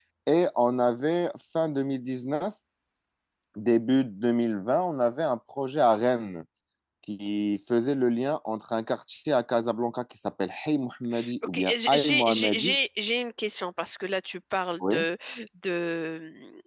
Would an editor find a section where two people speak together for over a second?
Yes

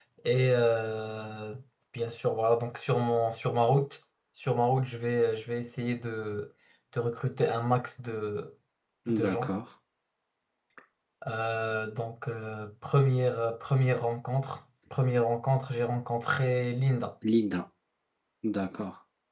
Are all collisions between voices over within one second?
Yes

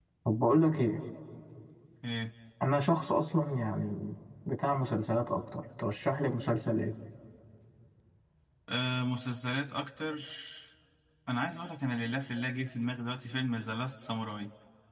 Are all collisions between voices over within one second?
Yes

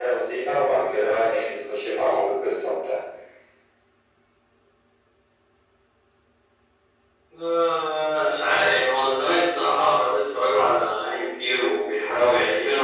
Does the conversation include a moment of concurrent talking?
No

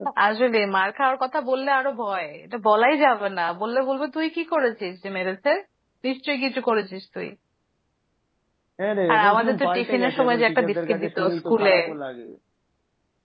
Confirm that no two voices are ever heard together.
No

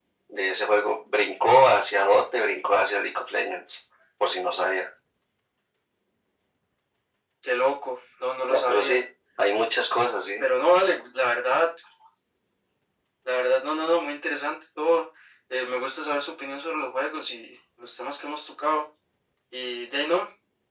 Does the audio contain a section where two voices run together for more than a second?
No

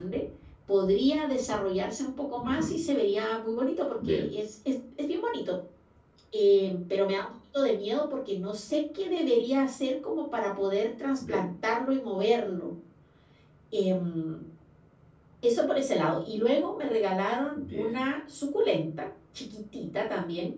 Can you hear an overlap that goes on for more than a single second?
No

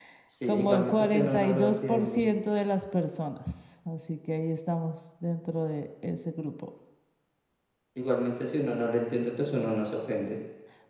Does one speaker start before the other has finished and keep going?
Yes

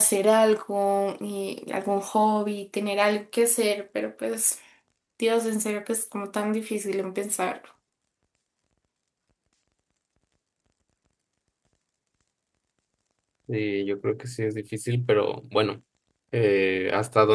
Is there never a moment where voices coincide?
Yes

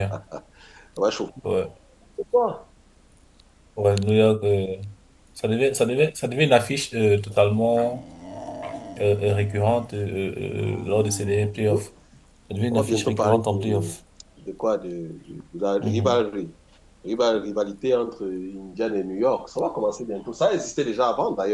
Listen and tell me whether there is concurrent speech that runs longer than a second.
Yes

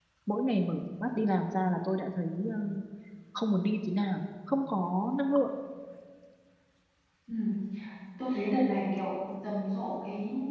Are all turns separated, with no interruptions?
Yes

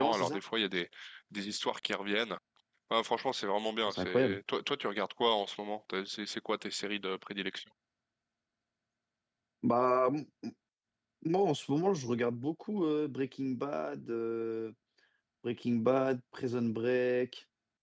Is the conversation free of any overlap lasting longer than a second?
Yes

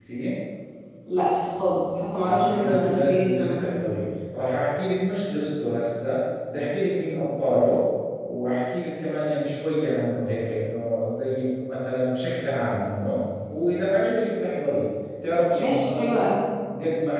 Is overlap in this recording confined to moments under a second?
No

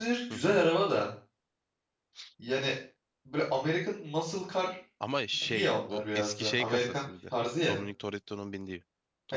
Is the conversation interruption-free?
No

